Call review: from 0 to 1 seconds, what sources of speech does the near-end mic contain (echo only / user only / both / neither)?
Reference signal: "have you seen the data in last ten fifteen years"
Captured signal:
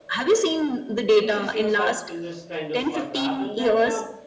echo only